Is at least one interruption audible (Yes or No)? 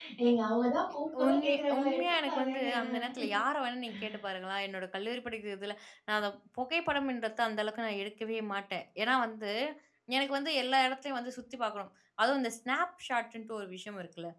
Yes